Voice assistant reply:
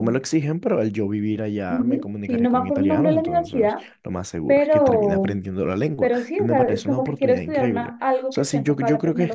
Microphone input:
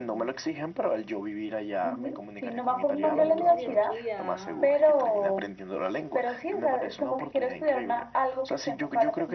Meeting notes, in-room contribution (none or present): present